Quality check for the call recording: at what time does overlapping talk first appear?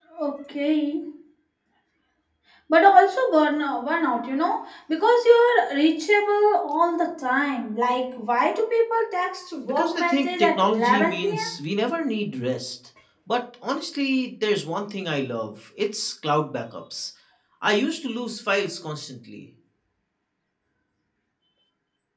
10 s

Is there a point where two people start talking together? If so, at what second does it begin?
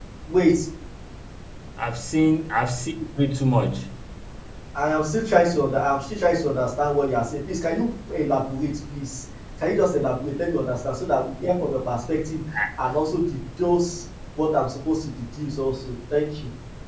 none

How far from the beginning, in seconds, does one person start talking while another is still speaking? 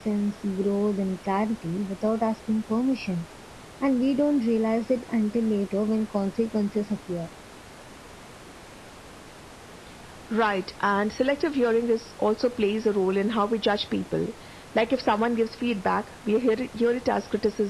none

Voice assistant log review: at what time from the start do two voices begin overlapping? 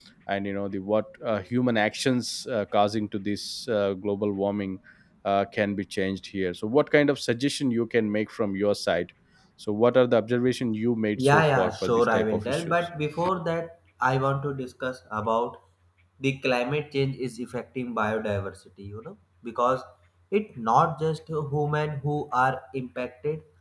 11 s

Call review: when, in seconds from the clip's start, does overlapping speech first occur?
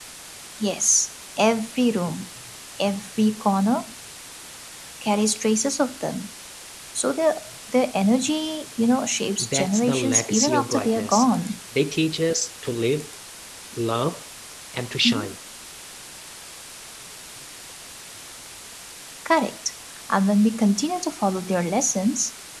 9 s

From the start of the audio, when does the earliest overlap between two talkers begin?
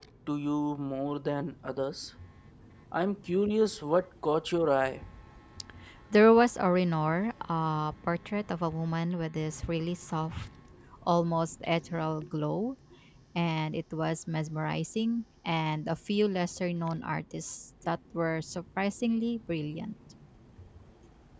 none

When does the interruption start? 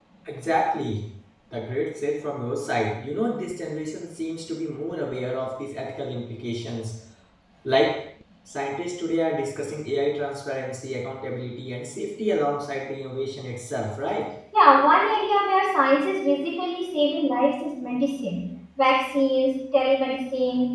none

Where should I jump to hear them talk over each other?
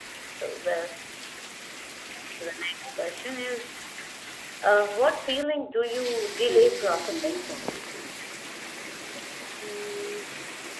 6 s

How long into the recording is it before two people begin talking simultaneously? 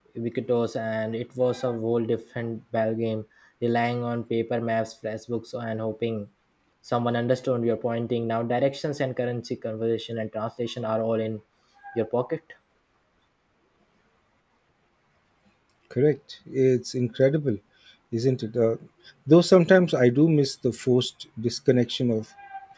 none

